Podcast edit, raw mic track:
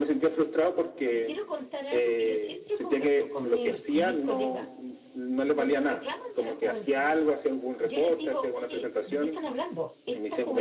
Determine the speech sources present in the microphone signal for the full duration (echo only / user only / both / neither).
both